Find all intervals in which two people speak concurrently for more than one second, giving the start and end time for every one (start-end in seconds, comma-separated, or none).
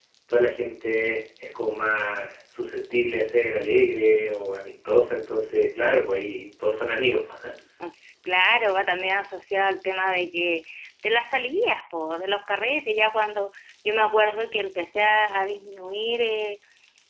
none